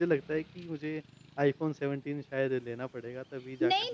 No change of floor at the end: No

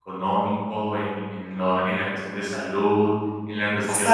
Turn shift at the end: Yes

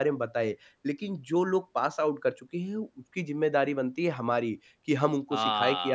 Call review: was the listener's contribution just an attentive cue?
Yes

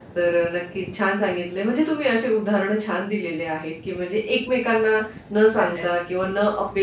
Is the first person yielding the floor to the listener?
No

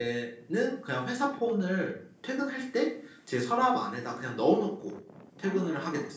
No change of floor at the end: No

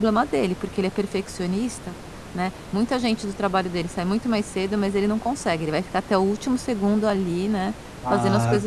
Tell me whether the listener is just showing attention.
No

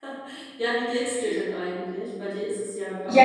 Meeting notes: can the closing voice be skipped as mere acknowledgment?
No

